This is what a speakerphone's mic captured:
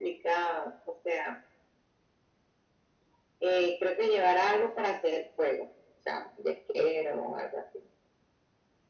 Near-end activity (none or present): none